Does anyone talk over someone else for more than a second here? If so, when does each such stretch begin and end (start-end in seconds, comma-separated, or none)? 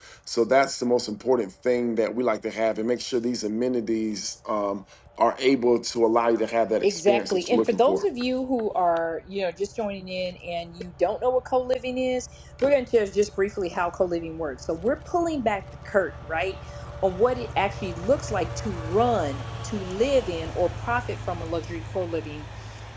6.8-8.0